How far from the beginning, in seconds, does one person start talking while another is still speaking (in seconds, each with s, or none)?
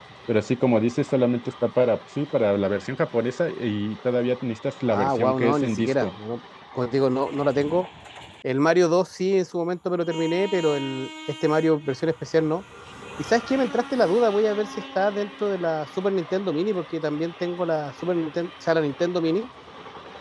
4.9 s